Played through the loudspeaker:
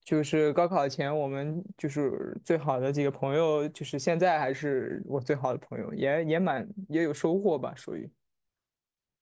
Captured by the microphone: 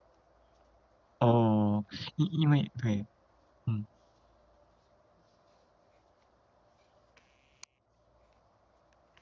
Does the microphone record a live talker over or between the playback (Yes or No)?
Yes